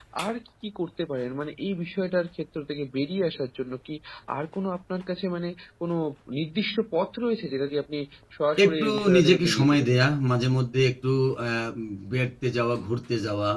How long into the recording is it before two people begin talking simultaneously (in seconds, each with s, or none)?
8.7 s